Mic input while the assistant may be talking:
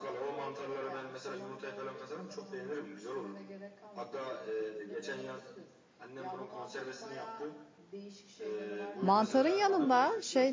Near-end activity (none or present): present